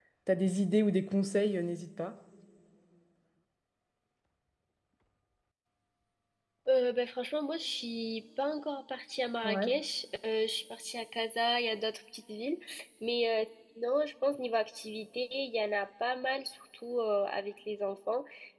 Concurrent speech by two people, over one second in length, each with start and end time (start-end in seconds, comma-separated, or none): none